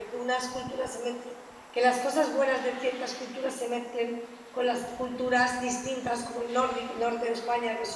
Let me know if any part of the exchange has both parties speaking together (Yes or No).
No